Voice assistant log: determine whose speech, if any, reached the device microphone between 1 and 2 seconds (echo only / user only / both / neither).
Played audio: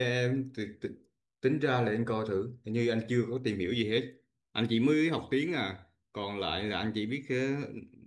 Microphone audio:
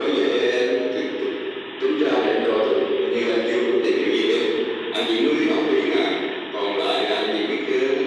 echo only